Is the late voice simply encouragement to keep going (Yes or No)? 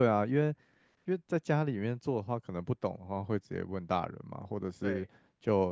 Yes